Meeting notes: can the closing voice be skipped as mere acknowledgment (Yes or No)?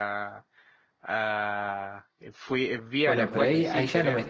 No